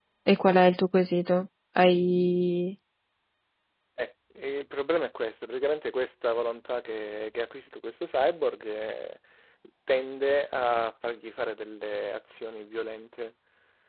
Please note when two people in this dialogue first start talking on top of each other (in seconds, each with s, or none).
none